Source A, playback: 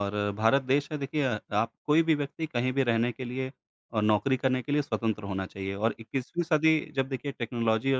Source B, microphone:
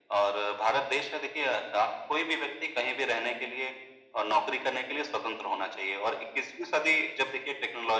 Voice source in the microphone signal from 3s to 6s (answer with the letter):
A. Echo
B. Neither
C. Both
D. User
A